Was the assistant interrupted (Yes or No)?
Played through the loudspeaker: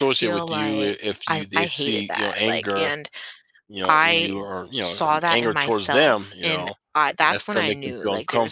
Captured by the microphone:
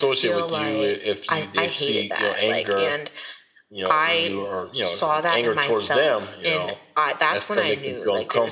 No